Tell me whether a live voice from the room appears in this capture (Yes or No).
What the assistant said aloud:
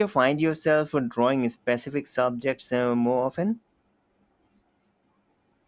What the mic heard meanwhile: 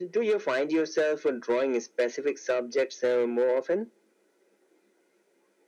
No